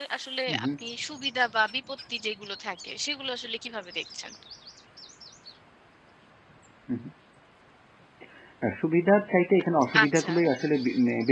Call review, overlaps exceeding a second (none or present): none